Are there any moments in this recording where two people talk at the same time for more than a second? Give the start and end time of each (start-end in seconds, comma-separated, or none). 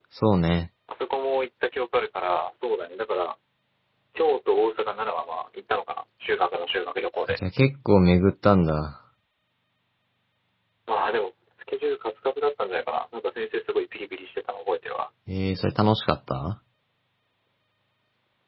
none